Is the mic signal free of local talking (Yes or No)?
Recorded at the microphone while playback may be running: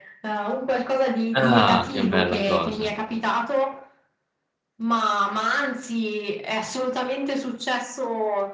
No